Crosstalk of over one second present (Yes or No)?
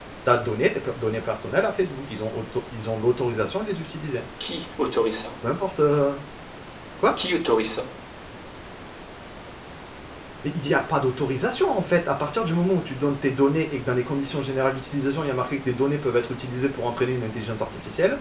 No